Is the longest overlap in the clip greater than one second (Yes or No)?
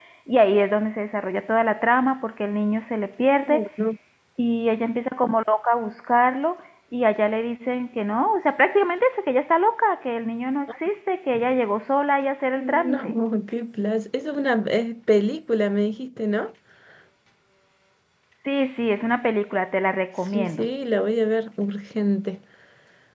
No